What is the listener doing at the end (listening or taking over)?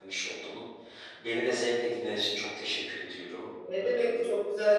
taking over